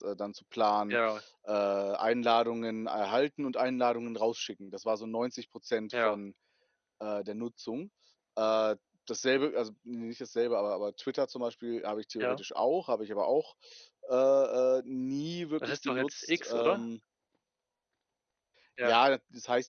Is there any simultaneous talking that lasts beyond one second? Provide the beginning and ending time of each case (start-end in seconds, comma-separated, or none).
15.6-16.8